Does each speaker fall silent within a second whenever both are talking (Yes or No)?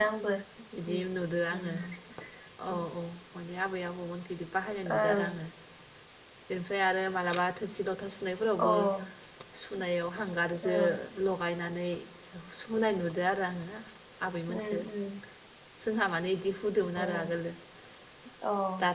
Yes